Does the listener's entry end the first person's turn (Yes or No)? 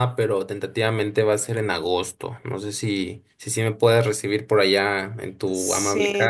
Yes